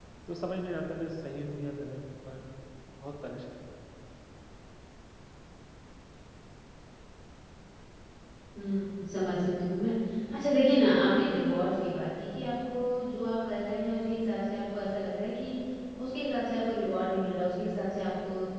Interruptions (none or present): none